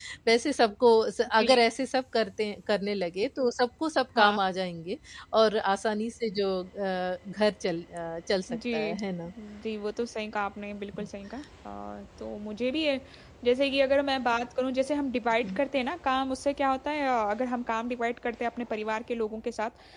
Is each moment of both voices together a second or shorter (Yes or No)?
Yes